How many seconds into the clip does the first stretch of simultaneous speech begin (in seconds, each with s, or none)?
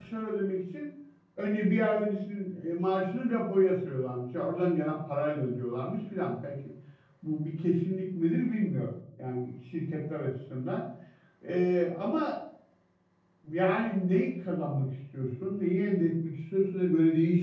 none